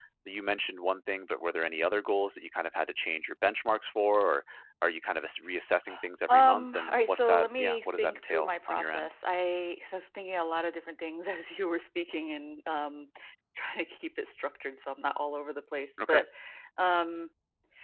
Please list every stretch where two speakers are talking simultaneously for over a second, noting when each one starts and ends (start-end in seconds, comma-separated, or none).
6.3-9.1